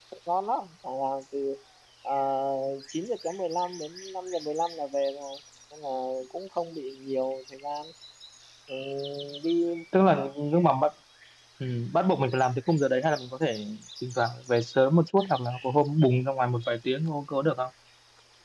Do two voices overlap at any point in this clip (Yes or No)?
No